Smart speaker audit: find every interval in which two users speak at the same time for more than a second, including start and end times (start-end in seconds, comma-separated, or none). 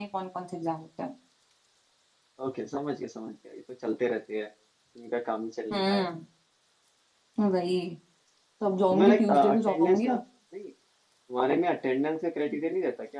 8.9-10.1